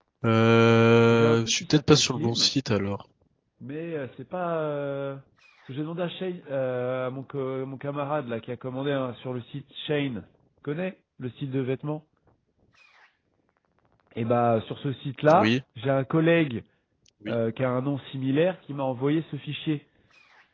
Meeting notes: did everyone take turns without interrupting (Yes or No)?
No